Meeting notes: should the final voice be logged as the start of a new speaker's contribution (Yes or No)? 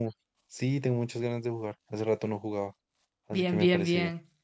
Yes